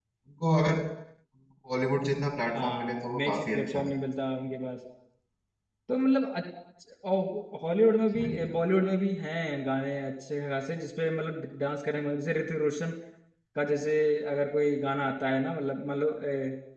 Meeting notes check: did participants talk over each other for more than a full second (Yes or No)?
Yes